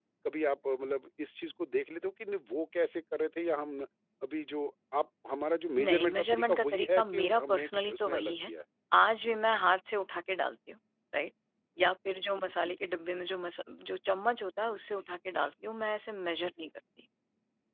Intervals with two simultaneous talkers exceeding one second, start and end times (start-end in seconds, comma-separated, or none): 5.8-8.3